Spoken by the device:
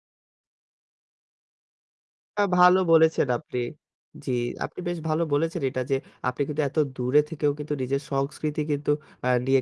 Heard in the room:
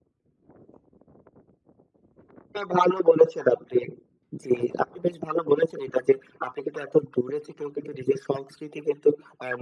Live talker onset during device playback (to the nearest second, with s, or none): none